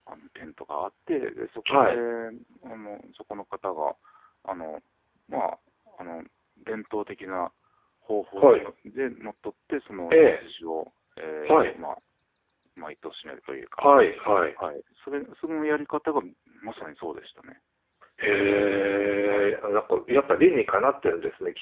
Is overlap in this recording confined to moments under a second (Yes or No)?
Yes